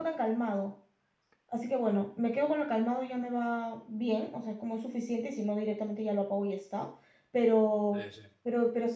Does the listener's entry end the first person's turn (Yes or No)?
No